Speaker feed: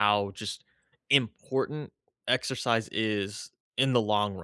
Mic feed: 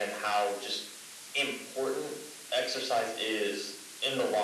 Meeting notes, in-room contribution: none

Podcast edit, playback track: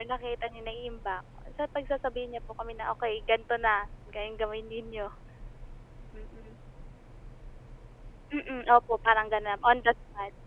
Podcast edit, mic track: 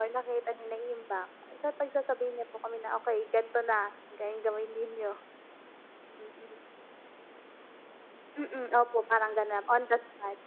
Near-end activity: none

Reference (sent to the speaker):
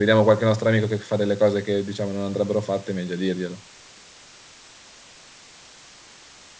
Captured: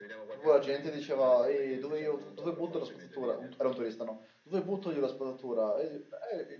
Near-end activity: present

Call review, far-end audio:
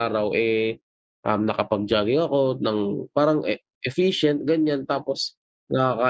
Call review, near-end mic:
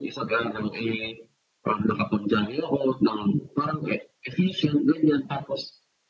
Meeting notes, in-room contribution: none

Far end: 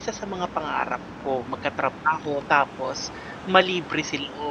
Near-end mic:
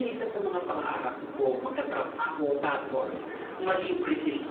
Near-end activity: none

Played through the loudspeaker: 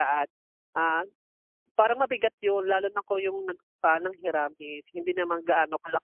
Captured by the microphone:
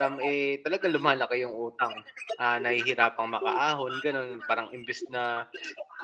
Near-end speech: present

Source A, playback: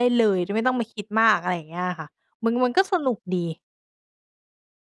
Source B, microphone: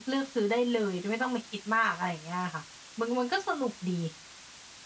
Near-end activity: none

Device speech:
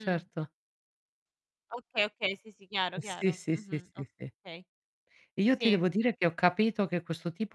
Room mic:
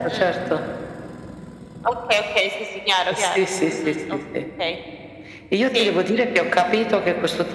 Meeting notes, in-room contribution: none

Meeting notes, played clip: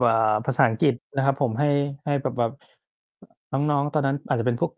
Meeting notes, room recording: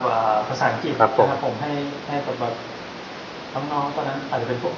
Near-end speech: present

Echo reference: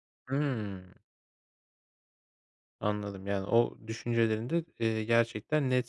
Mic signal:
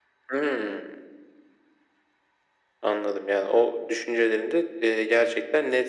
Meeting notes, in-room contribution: none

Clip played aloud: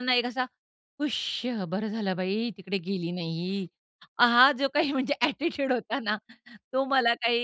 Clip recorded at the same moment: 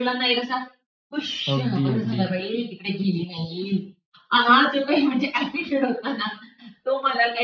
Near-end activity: present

